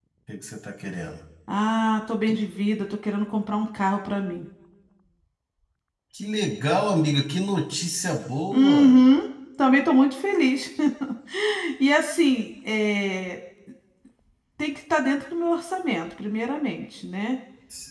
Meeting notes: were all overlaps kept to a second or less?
Yes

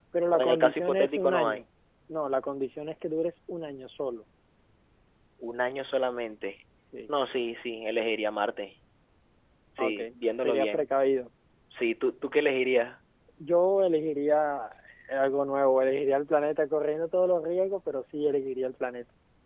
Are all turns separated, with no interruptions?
No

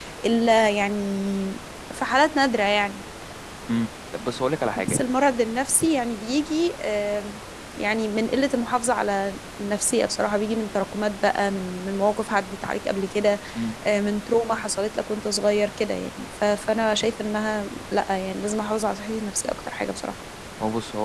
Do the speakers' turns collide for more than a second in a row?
No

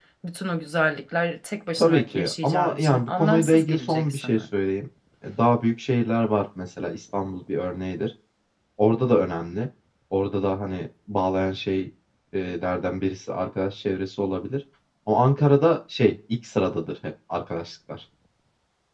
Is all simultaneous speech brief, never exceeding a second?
No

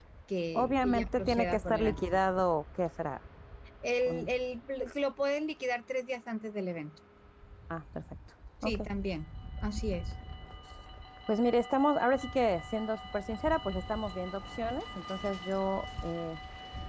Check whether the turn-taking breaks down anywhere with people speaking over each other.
Yes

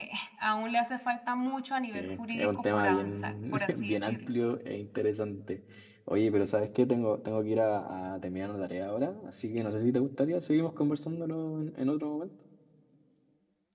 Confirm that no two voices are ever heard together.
No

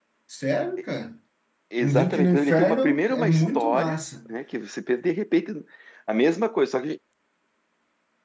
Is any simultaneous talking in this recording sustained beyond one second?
Yes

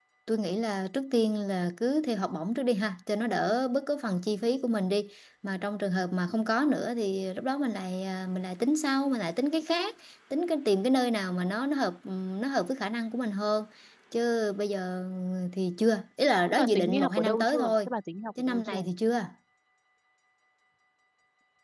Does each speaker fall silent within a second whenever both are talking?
No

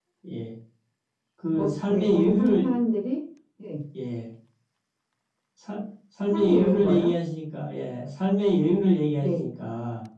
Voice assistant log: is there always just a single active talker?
No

